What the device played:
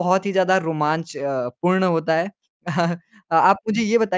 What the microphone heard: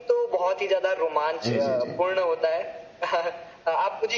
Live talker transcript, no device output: जी, जी, जी।

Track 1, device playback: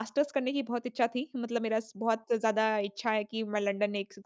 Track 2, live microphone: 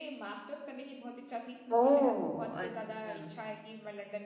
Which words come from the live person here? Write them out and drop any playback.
ओह! अच्छा।

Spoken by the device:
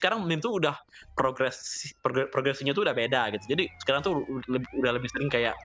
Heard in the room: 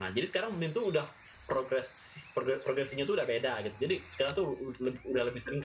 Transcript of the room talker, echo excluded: none

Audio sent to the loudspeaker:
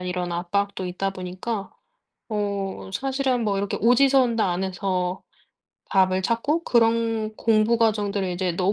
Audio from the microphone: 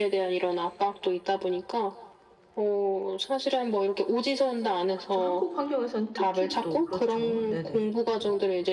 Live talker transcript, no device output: 그쵸. 한국 환경에서는 특히 또 그렇죠. 네네.

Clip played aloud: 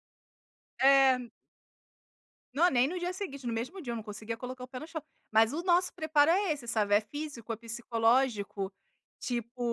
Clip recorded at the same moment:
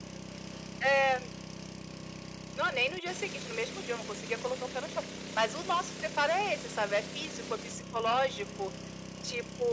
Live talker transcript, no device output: none

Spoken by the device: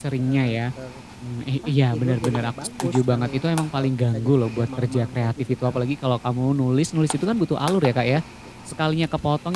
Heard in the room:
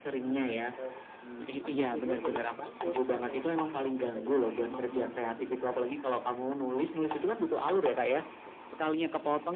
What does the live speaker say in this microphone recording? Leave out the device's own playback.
none

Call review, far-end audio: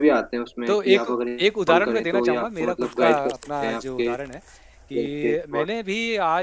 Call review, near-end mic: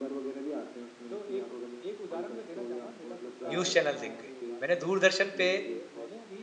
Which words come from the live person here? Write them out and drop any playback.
न्यूज़ चैनल देख के, मैंने दूरदर्शन पे,

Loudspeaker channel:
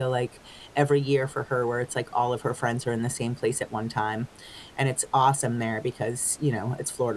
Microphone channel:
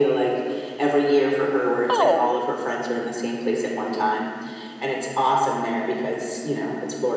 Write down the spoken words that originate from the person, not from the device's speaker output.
Oh, it

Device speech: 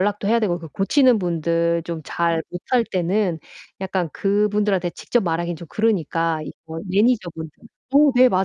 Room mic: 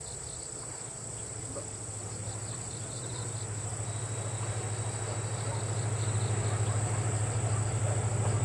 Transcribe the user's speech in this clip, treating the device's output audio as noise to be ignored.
none

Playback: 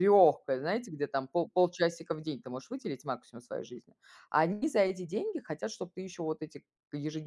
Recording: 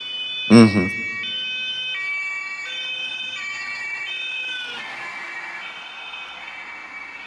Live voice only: Мгм.

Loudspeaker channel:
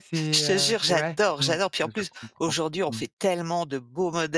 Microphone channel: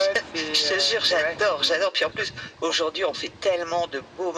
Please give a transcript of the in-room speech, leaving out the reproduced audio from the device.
none

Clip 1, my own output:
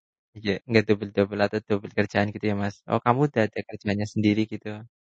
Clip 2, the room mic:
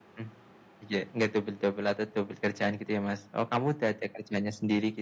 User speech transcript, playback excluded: none

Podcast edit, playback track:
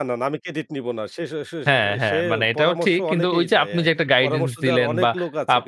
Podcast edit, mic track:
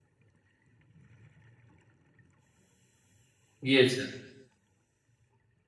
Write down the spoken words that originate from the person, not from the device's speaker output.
গিয়েছে।

